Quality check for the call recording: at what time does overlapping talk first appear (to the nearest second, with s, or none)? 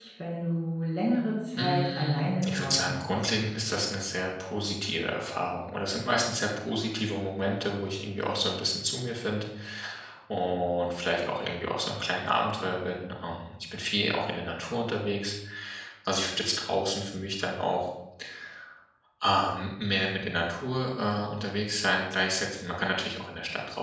2 s